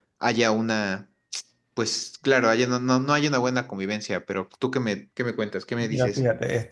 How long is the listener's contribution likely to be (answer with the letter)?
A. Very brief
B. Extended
B